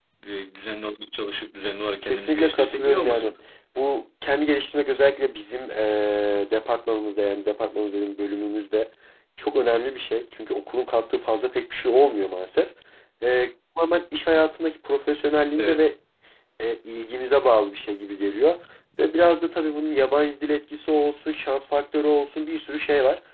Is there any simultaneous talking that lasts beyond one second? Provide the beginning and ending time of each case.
2.0-3.3

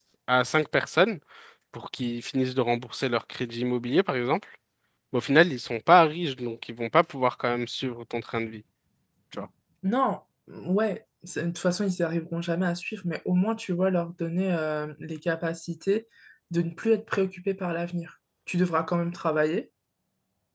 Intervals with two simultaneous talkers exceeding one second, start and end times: none

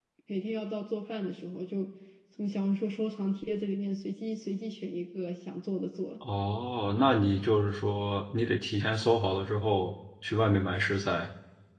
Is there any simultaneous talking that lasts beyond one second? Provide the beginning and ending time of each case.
none

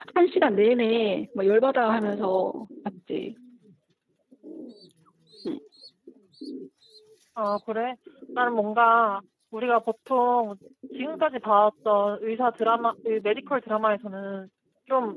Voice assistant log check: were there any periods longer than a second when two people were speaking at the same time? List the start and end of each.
none

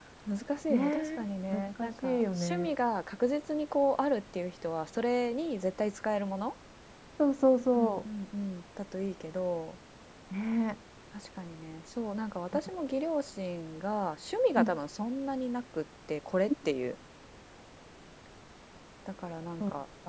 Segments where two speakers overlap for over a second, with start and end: 0.7-2.7

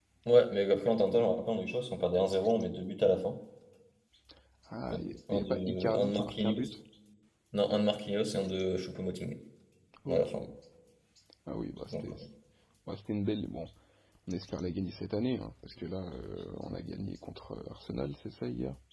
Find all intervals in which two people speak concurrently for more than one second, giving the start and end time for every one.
4.9-6.7

